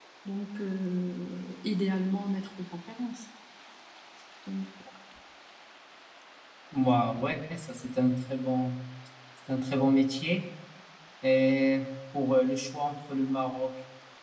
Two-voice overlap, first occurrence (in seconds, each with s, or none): none